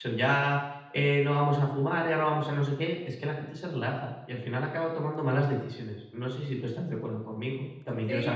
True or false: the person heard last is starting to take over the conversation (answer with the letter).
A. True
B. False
A